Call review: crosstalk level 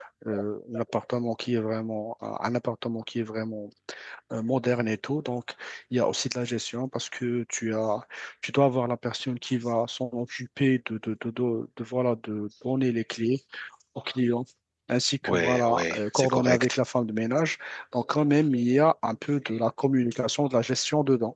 present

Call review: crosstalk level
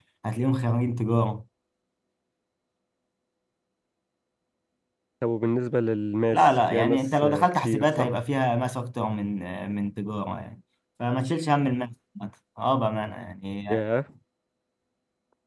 present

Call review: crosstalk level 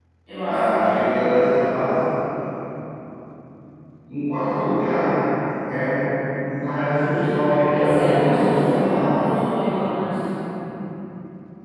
present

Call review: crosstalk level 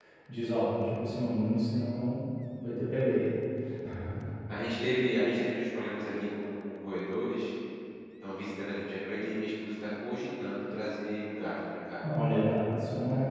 none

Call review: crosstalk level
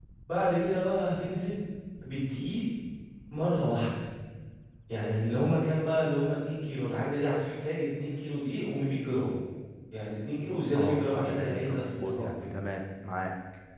present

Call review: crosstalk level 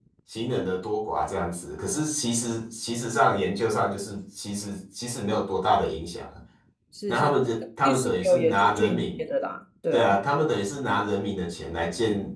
present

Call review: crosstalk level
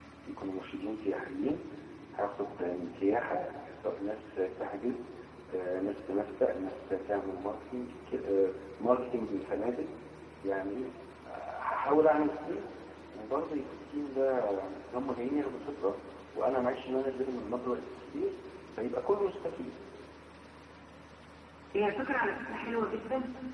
none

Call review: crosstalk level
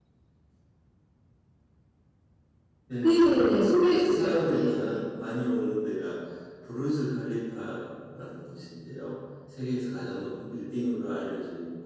present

